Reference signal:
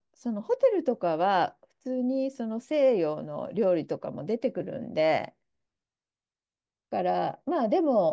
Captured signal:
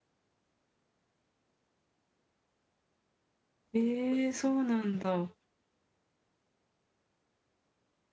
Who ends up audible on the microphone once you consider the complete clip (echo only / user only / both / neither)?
user only